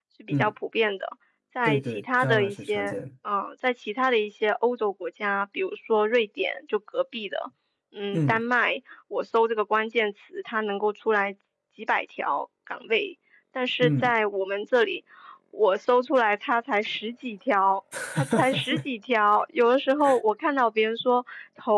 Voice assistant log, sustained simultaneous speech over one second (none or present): present